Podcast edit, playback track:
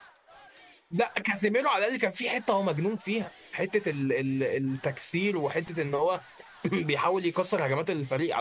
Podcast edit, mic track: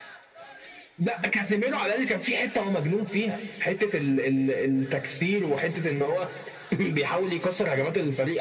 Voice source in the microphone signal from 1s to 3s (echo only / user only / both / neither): echo only